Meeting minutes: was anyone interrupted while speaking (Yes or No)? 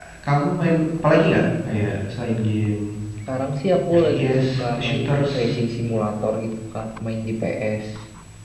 Yes